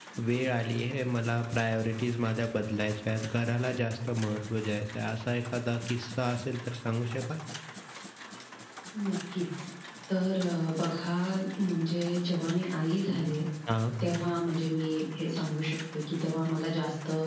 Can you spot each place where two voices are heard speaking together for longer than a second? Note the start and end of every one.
none

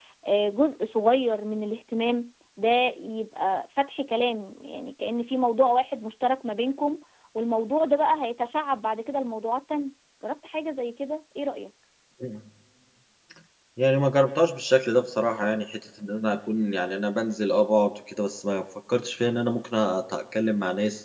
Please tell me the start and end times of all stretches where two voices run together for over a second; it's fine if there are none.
none

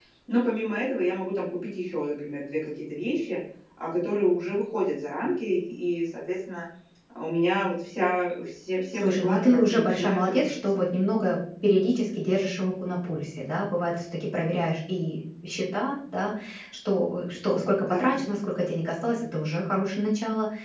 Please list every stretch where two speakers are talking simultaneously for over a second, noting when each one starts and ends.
8.9-10.8

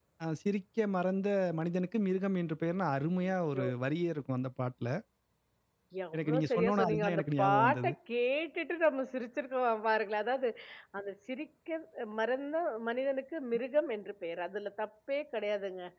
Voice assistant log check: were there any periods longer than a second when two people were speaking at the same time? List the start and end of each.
6.2-7.9

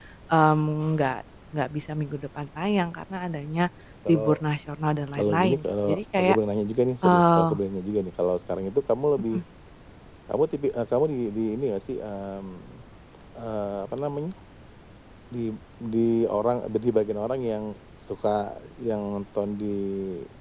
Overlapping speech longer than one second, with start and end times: 5.1-6.4

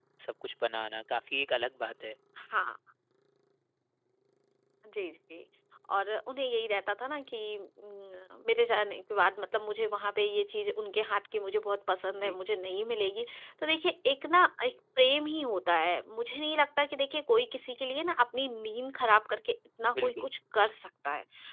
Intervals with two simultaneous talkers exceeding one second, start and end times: none

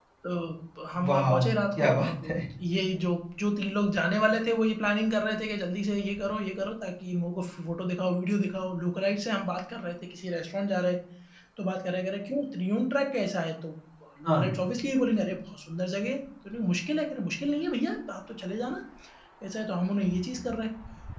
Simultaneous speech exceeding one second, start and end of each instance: 1.1-2.4

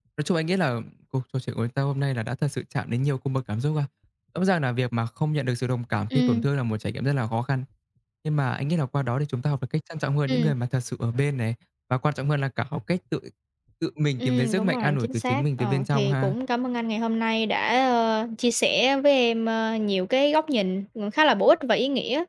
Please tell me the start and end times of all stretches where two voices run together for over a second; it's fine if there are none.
14.2-16.3

